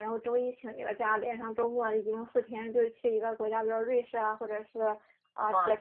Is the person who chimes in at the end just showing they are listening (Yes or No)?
Yes